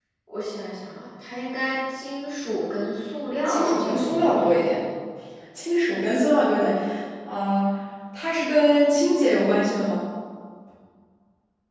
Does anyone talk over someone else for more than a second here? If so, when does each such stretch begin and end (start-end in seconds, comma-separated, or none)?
3.5-4.7